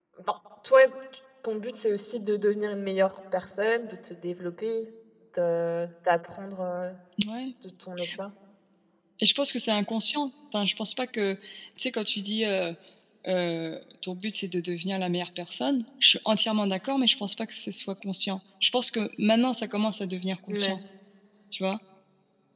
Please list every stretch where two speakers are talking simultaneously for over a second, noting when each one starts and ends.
none

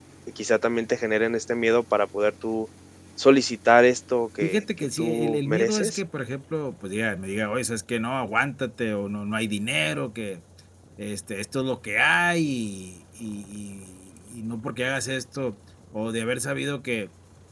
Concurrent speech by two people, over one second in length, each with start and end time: 4.4-6.0

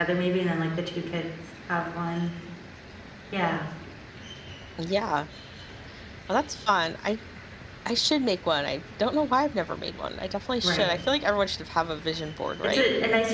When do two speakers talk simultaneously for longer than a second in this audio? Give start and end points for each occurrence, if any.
none

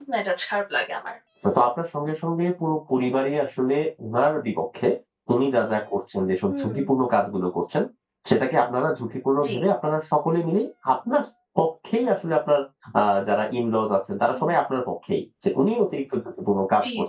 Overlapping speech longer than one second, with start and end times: none

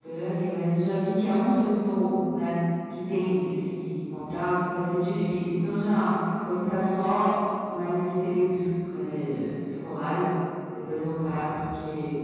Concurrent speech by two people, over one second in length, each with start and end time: none

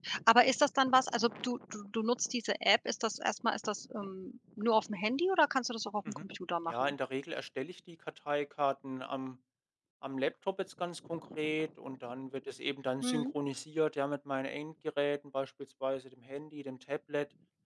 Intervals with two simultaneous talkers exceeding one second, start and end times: none

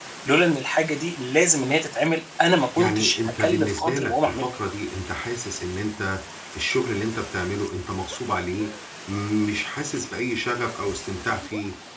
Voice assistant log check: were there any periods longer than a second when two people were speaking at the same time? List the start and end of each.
2.8-4.4

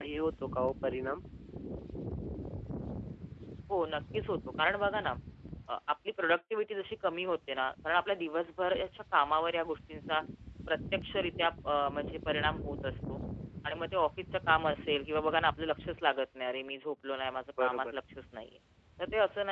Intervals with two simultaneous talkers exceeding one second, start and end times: none

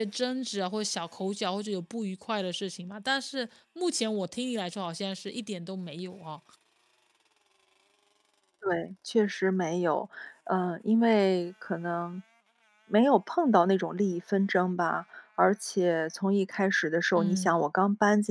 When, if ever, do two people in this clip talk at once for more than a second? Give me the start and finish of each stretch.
none

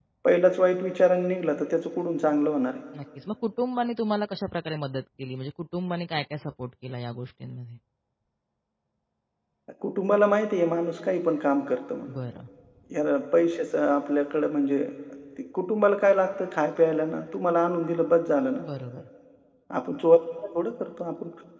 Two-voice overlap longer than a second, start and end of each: none

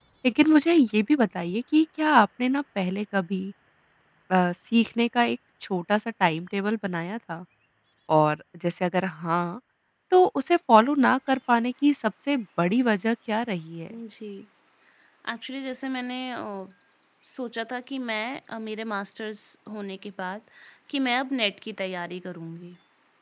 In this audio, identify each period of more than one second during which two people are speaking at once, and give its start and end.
none

